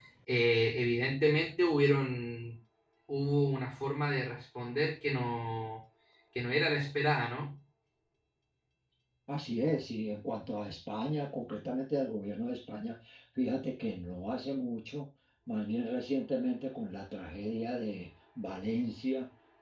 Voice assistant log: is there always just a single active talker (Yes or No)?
Yes